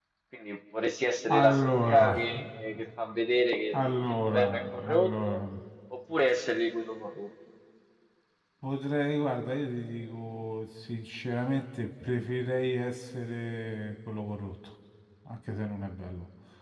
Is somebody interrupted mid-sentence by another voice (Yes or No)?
Yes